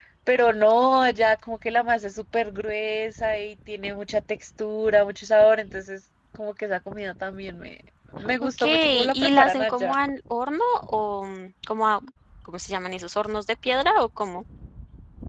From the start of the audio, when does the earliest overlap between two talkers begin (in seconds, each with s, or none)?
8.4 s